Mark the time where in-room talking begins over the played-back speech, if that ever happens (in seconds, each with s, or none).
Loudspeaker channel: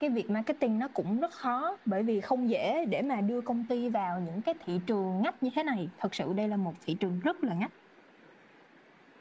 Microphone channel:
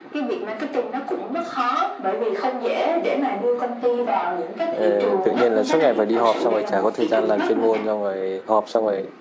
4.7 s